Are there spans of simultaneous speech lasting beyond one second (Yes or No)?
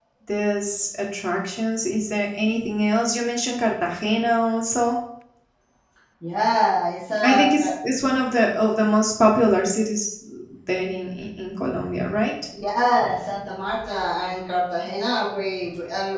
No